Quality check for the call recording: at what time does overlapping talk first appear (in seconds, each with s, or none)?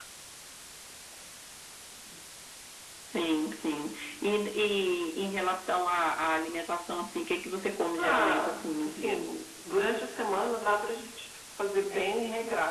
8.0 s